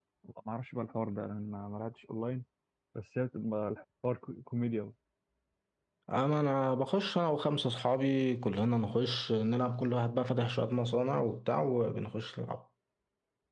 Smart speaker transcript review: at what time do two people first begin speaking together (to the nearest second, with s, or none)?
none